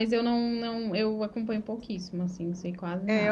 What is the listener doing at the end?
taking over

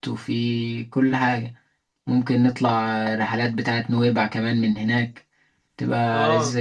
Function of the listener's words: taking over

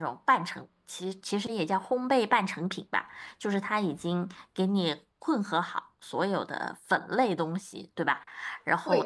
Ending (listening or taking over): listening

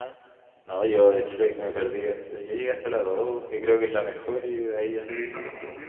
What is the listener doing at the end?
taking over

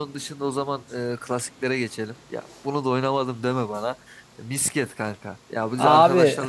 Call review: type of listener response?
listening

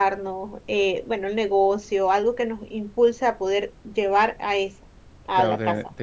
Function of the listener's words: taking over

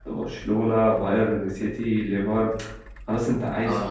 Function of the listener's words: taking over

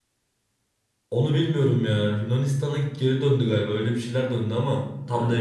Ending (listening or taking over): taking over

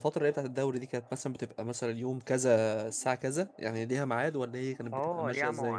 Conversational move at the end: taking over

